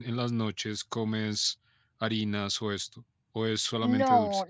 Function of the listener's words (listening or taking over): taking over